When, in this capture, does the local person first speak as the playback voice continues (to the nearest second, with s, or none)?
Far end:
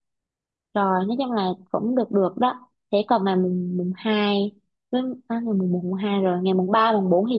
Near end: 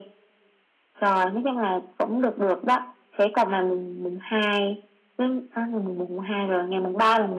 none